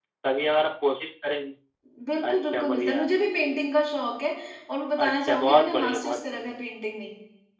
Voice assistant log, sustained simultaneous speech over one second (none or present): present